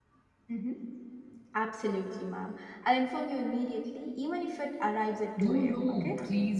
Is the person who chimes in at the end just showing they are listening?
No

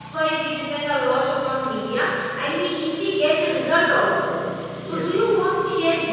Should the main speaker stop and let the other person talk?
No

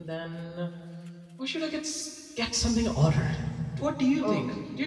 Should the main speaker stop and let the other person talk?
No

